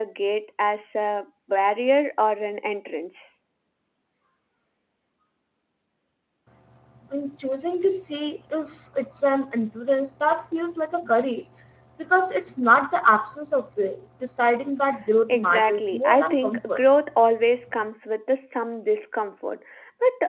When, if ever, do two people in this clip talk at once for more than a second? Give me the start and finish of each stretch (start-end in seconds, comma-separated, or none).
15.3-16.8